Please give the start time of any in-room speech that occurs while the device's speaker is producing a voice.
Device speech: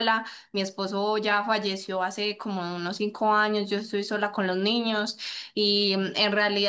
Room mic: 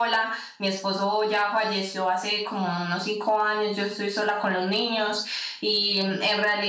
none

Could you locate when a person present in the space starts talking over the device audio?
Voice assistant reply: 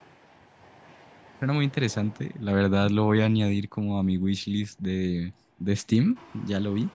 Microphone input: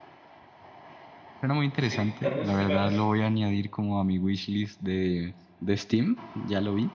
1.7 s

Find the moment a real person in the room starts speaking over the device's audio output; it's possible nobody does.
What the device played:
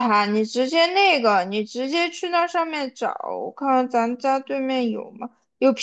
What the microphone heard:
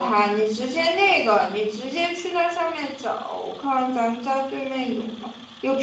none

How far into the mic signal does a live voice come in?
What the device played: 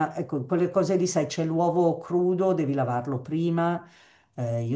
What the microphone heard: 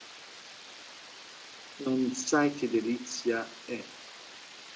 1.8 s

